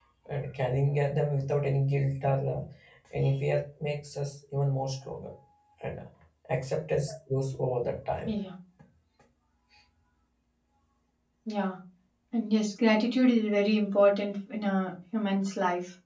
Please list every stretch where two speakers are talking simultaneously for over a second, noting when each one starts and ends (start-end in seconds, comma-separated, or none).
none